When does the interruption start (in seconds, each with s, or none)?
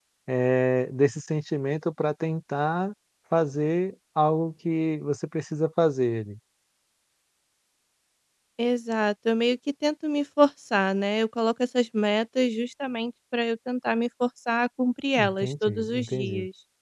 15.2 s